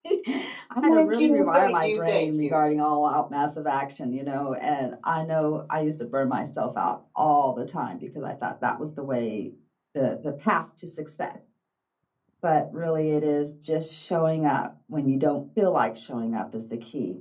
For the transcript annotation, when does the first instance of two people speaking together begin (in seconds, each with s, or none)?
0.8 s